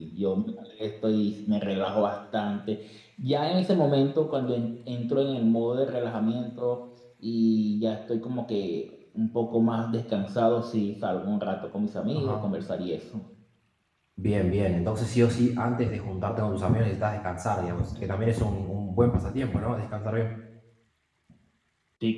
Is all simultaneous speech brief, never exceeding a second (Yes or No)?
Yes